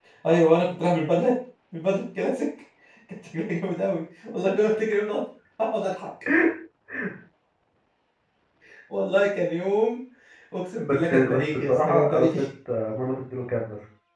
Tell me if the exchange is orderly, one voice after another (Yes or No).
No